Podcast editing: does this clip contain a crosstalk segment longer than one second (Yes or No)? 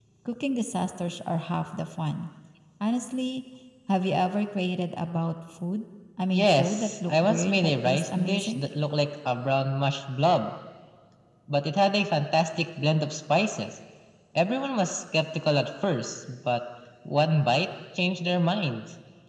Yes